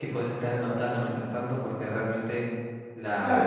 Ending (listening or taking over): taking over